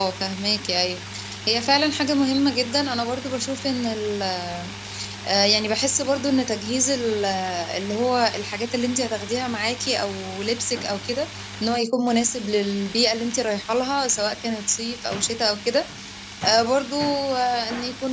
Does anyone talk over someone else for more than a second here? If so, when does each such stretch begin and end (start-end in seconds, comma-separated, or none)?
none